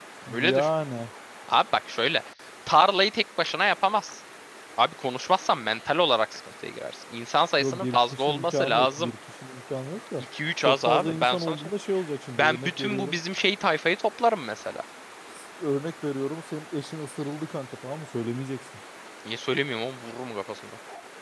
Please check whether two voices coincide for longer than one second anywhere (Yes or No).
Yes